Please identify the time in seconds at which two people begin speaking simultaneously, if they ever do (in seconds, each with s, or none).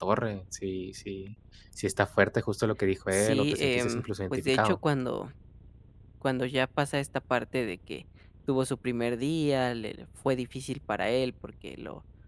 3.1 s